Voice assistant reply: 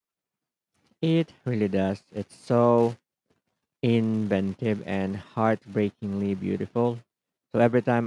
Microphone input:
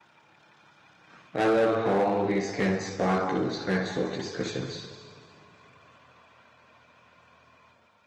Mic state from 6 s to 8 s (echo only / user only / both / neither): neither